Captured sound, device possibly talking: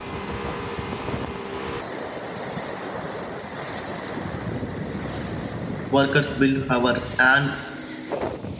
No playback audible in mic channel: Yes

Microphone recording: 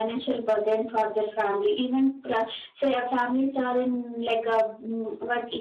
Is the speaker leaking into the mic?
Yes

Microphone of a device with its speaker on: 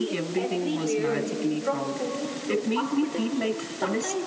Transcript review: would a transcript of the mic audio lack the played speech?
No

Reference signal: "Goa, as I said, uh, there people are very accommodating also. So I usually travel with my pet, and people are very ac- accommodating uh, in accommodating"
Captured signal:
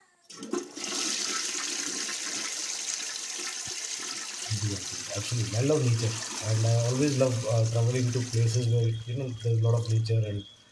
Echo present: No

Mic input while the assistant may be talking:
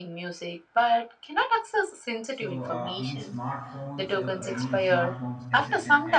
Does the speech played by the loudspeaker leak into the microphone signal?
Yes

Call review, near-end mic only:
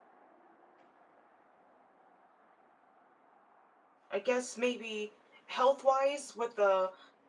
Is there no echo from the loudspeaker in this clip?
Yes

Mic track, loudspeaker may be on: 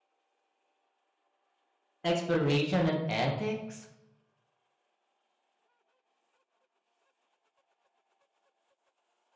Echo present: No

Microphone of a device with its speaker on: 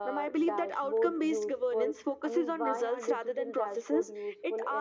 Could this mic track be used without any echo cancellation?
No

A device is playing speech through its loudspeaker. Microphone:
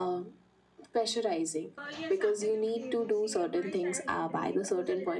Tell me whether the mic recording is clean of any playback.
No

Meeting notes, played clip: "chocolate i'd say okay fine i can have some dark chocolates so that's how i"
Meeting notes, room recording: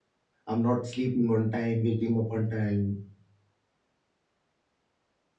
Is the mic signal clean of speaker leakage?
Yes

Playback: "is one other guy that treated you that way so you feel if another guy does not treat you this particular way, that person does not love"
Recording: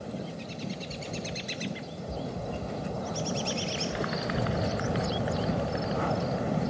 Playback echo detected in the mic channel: No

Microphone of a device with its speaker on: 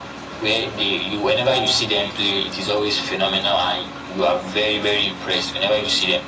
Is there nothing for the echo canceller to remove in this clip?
No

